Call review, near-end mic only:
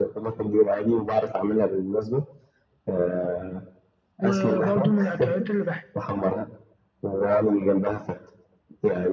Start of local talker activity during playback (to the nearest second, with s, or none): 4 s